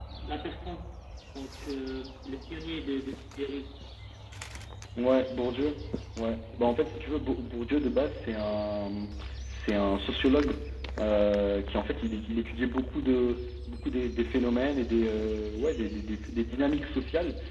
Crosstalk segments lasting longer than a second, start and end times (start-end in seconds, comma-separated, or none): none